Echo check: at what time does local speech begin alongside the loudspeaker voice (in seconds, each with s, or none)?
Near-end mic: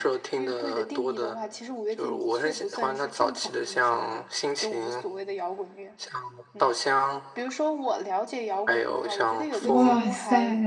9.6 s